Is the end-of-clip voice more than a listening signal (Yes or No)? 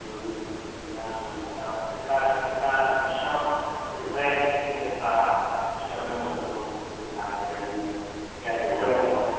No